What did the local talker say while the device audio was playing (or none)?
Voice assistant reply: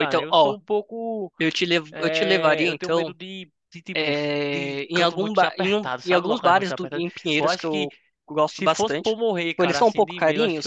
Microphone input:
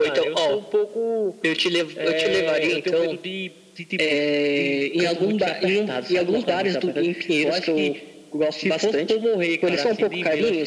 none